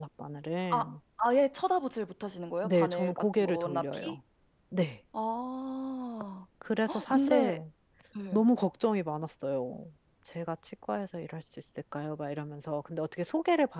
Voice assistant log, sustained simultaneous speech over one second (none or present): present